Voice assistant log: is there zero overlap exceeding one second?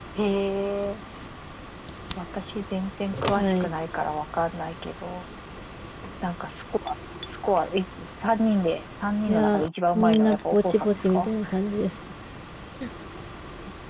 No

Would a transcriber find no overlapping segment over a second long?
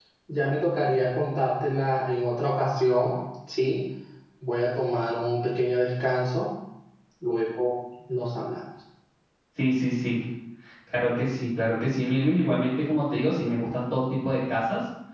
Yes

